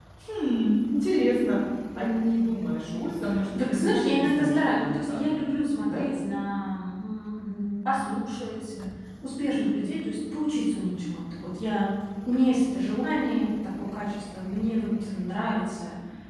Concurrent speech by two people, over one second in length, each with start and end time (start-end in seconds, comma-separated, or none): 3.7-5.2